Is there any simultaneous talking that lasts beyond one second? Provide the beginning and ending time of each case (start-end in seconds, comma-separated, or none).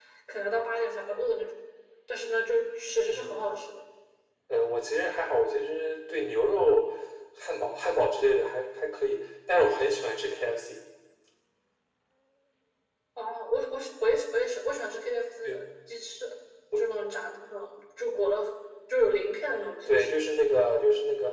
none